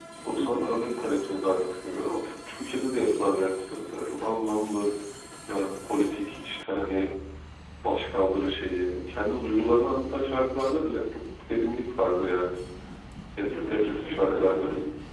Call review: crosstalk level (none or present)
present